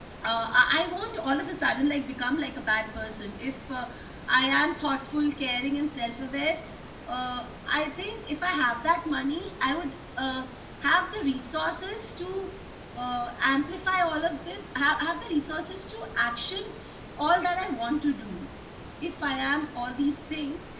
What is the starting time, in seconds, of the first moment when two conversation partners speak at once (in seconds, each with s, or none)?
none